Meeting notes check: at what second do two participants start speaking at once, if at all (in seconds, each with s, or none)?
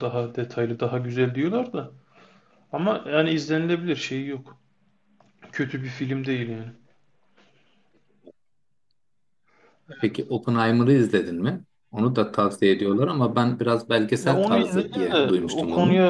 14.2 s